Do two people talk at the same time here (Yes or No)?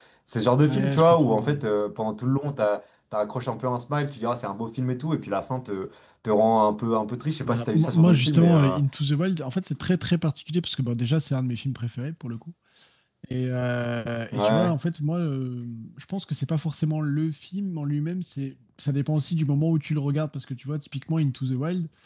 Yes